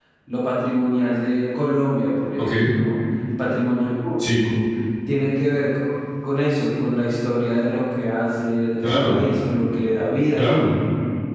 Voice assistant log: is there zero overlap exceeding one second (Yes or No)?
Yes